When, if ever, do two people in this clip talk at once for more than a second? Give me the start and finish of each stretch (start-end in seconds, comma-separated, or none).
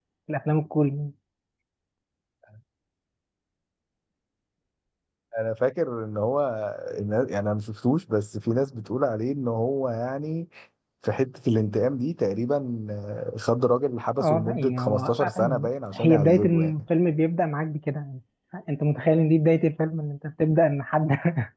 14.2-16.8